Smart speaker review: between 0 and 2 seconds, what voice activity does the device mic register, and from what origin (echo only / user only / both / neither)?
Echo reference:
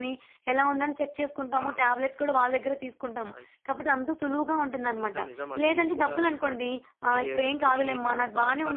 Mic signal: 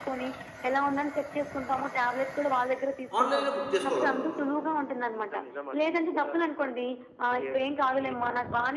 echo only